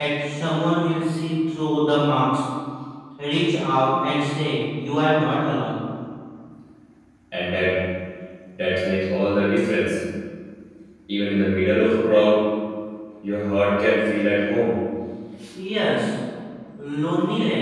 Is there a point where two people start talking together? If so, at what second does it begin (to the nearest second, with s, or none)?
none